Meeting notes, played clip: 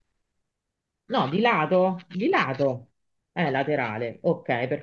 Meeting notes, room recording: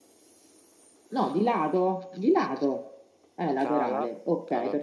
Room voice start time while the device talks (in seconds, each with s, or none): 3.5 s